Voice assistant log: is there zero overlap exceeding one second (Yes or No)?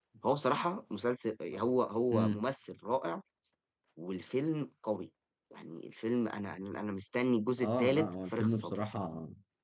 No